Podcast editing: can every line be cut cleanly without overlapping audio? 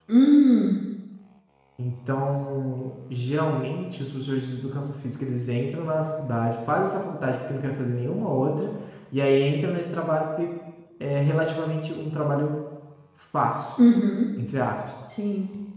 Yes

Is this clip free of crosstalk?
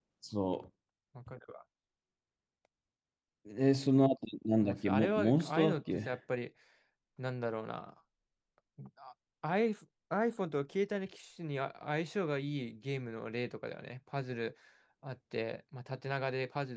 No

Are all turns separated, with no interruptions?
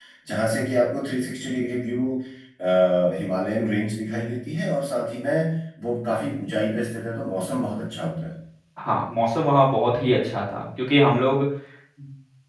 Yes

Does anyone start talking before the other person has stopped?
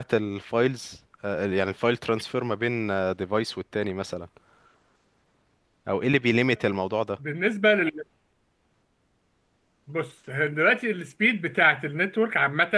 No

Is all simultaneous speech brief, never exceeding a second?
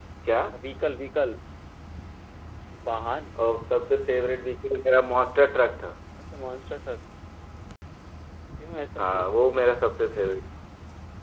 Yes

